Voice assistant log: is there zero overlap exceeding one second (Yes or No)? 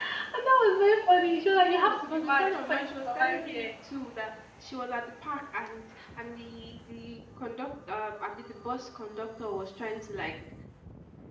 No